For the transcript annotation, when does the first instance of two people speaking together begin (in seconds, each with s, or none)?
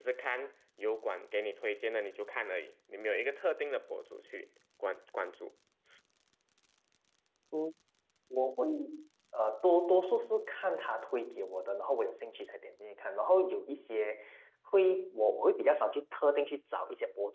none